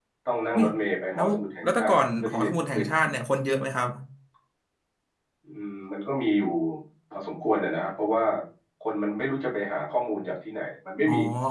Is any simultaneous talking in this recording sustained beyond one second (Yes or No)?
Yes